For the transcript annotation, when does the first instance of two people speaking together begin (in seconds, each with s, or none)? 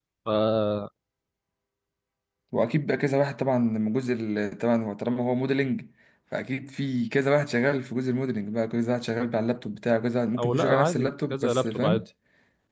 10.4 s